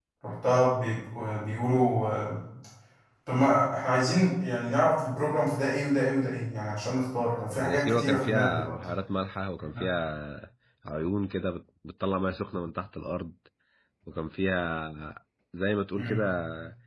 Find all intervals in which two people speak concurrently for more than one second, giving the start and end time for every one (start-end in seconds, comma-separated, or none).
7.5-8.7